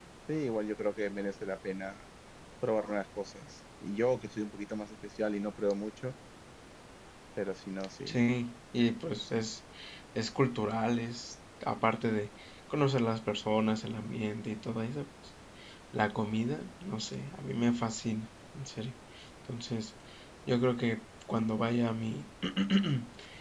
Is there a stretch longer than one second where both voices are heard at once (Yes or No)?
No